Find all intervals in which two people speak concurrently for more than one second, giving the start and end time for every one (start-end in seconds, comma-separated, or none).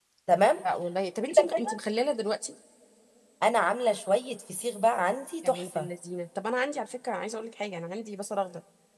none